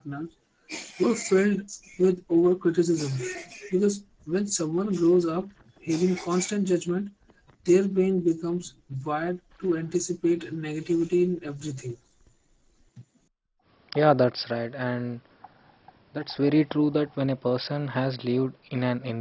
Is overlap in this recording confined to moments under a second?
Yes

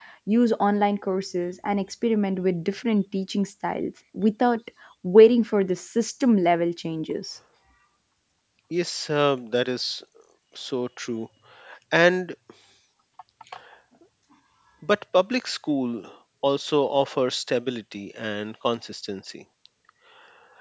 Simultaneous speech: No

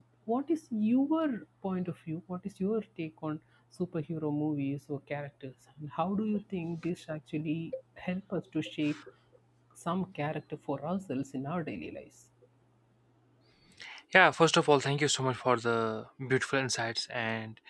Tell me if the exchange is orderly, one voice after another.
Yes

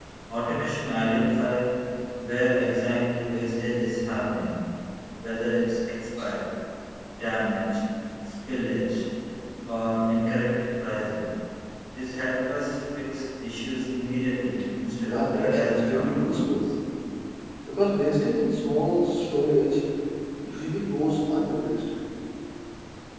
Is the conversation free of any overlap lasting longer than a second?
No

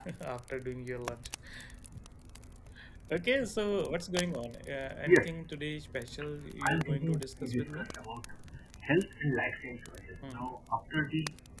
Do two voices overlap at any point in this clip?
Yes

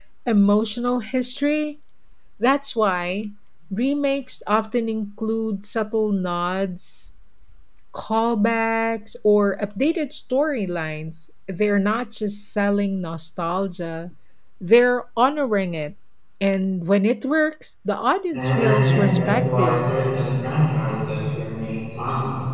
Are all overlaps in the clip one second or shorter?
No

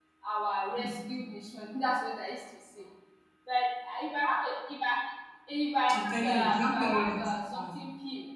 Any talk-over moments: Yes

